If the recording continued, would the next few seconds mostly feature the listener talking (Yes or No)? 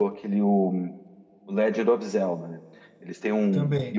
No